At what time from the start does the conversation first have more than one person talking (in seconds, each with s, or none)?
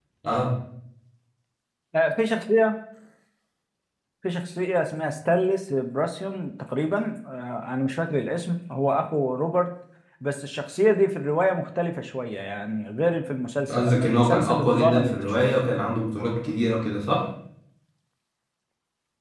13.7 s